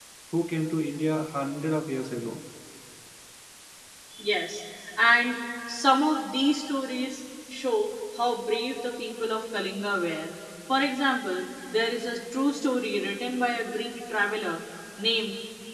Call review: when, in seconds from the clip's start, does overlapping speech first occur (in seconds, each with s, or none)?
none